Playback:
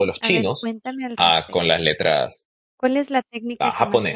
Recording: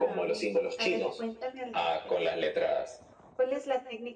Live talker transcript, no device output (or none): none